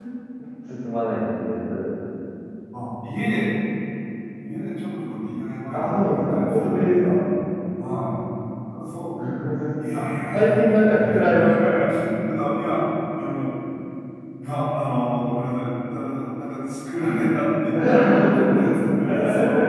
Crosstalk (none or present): present